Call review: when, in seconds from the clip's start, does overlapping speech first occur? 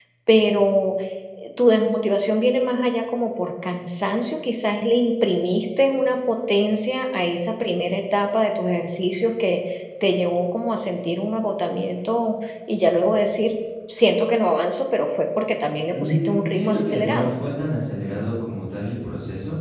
15.9 s

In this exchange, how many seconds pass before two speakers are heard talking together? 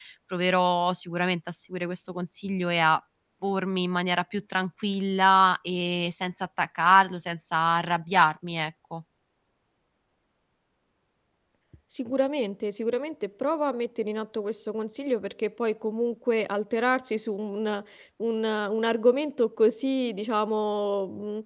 none

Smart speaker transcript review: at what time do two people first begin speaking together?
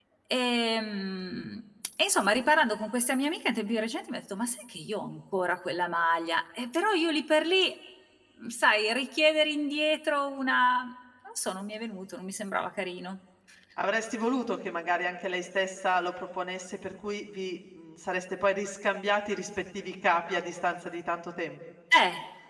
none

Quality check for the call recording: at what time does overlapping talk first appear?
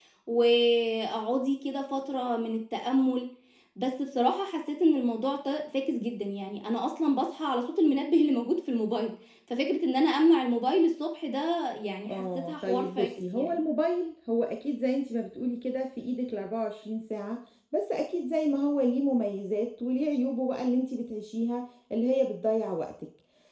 12.1 s

